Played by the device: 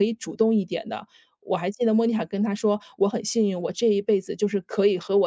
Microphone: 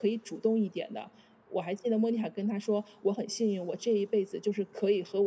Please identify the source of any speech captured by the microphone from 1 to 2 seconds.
echo only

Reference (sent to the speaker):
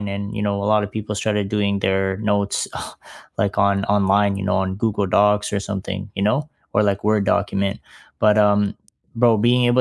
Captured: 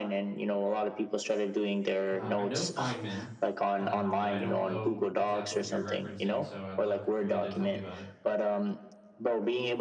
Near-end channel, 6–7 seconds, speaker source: both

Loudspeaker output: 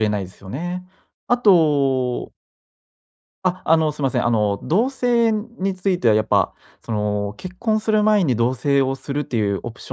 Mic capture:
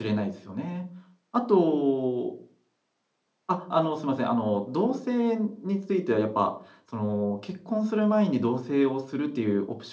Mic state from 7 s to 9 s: echo only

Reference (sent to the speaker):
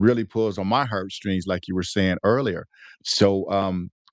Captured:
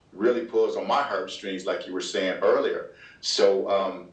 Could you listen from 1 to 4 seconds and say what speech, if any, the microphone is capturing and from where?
echo only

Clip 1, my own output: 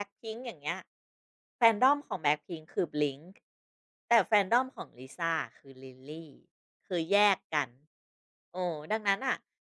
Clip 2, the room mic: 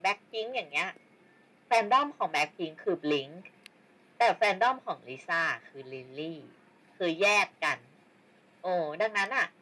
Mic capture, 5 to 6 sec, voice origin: echo only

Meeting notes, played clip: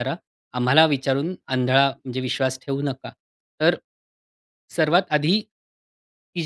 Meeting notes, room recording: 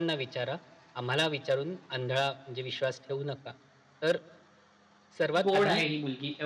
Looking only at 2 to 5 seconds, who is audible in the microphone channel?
echo only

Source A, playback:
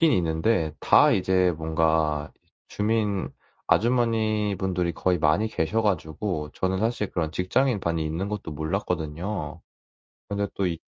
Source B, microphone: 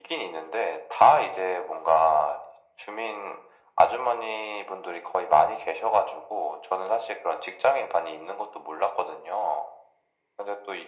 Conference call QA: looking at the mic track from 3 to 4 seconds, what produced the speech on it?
echo only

